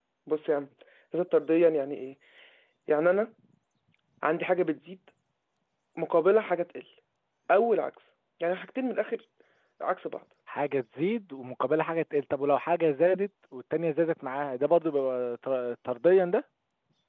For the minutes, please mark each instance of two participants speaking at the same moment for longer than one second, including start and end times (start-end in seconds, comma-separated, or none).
none